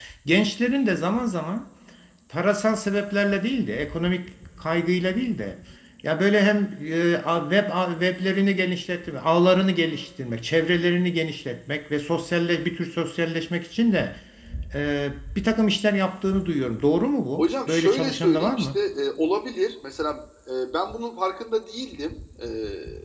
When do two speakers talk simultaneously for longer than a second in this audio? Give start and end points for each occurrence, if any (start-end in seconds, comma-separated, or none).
17.4-18.8